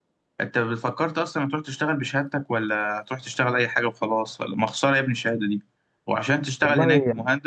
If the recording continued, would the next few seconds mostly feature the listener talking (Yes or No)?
No